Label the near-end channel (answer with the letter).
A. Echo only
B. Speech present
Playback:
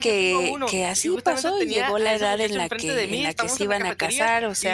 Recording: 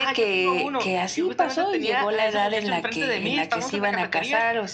A